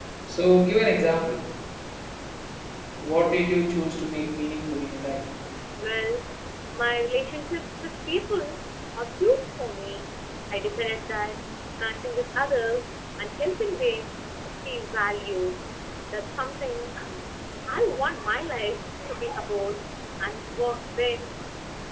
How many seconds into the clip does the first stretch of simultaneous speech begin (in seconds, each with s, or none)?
none